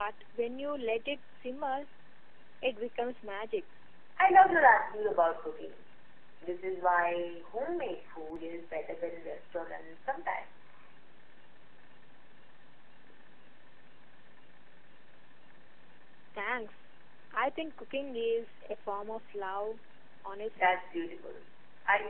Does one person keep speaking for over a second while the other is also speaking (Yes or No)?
No